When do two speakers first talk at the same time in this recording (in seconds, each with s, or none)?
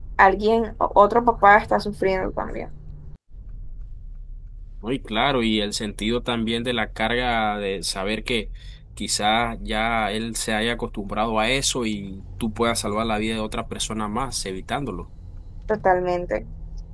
none